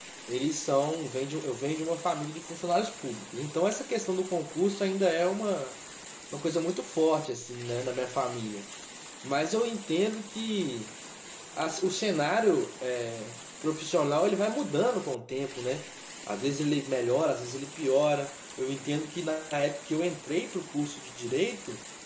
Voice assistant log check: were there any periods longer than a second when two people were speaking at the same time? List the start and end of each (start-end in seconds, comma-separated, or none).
none